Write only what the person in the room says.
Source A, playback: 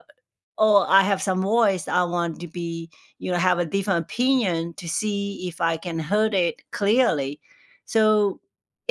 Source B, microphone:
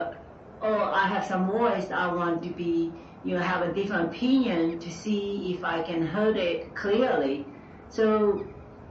none

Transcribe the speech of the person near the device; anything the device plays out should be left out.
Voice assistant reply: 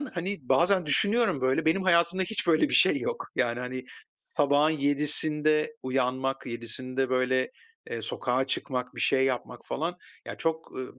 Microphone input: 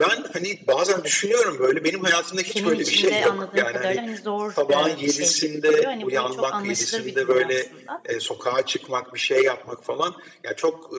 senin için de anladığım kadarıyla, hani, zor, eee, bir şey gibi duruyor. Hani, bu çok anlaşılır bir durum aslında.

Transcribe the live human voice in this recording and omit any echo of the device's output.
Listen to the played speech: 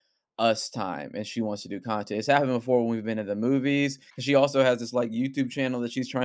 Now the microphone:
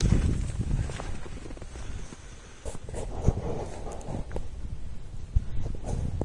none

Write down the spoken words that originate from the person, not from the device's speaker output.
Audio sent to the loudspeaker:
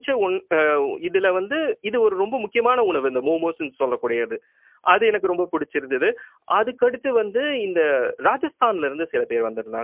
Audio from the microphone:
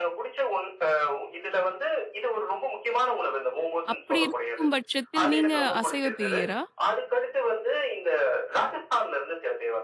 அப்படி இருக்கும் பட்சத்தில் நீங்க அசைவ பிரியரா?

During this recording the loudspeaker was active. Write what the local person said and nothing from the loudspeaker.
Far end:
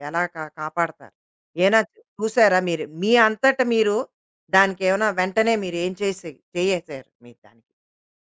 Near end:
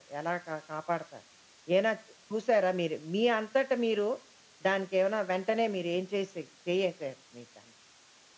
none

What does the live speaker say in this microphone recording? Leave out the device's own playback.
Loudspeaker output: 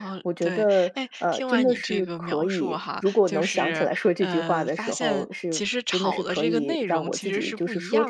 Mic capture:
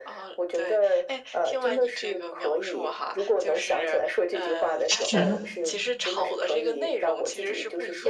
是

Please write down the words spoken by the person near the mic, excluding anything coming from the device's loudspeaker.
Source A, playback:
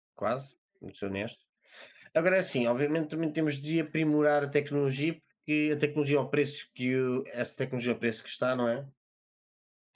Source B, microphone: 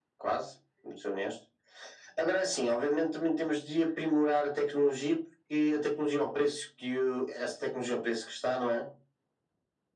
none

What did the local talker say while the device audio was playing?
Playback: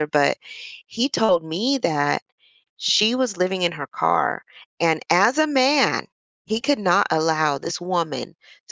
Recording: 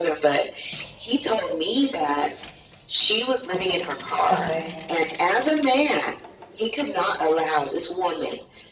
Okay. Okay.

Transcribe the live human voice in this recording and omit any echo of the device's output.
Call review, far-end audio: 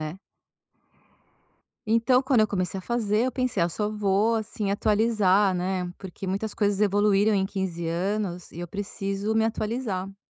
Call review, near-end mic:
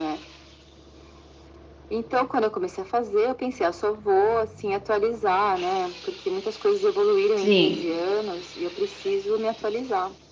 sim.

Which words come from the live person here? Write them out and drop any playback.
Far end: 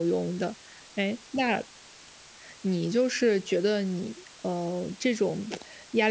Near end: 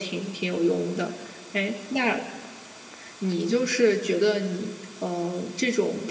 none

